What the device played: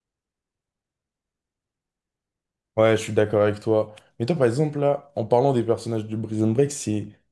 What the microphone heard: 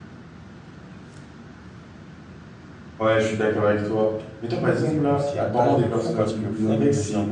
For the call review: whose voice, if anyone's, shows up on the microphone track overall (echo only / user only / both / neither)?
both